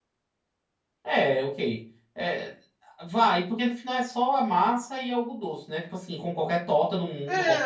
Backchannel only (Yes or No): No